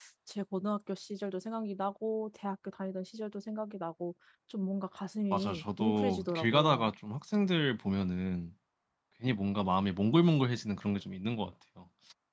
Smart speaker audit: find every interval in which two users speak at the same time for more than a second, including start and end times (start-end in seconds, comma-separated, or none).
5.3-6.9